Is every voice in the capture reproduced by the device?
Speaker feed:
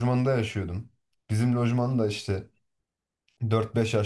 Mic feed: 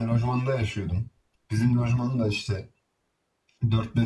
Yes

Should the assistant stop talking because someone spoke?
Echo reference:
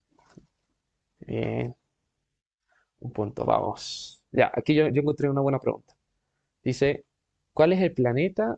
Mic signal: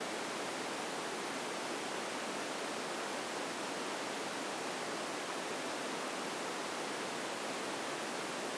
No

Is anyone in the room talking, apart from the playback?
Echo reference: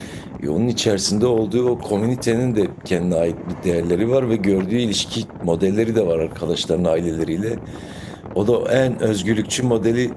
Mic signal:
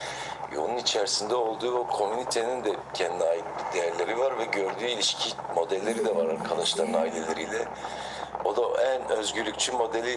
Yes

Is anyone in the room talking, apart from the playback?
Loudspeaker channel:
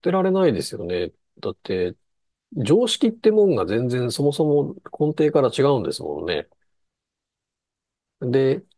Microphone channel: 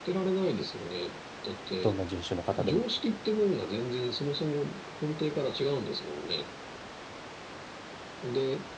Yes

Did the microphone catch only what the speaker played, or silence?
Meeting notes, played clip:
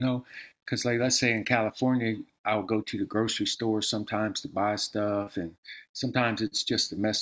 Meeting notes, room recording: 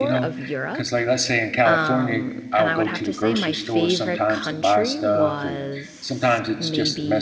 No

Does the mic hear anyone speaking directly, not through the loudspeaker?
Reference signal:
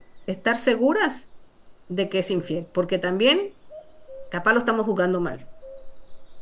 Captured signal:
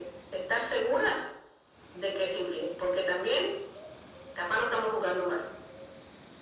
No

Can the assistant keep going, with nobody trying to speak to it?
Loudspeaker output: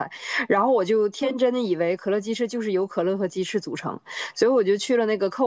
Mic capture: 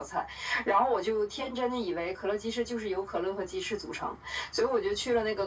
Yes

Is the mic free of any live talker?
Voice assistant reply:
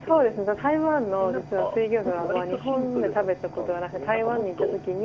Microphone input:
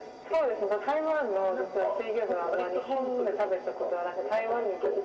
Yes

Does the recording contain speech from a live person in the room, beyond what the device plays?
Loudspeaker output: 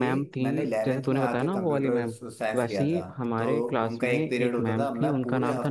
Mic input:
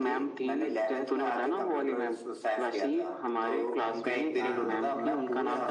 Yes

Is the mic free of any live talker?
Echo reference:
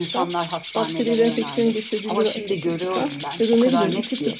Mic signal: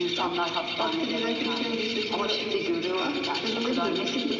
Yes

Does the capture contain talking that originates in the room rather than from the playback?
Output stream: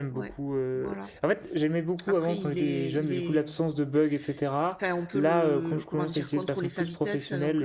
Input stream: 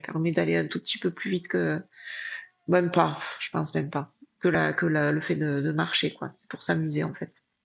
Yes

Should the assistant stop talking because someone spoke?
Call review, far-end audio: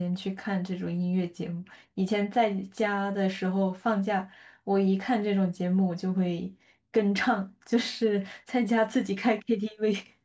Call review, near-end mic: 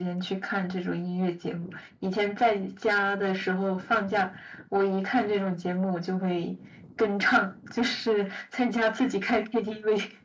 No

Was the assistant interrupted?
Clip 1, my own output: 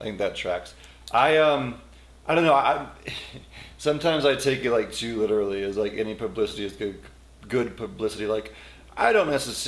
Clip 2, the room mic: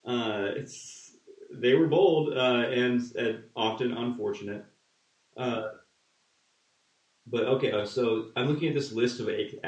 Yes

